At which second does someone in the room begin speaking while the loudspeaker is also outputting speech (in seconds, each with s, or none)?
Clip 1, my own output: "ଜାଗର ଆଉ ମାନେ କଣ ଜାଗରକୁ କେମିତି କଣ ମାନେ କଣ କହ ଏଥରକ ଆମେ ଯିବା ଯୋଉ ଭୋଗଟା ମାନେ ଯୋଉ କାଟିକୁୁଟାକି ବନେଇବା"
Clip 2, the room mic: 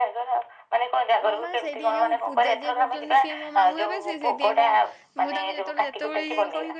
1.2 s